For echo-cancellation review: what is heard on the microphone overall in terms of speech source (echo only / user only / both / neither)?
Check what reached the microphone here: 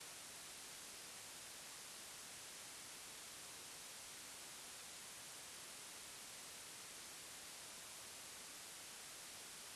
neither